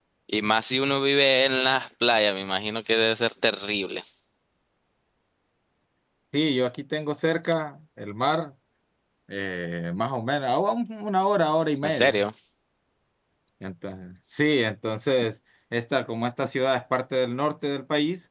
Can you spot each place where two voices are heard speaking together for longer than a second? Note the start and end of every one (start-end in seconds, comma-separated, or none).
none